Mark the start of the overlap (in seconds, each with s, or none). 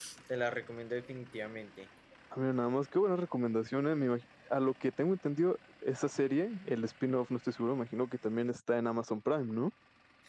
none